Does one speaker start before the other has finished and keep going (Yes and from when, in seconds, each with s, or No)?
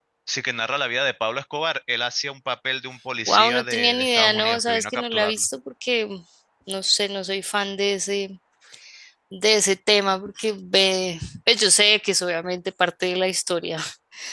Yes, from 3.3 s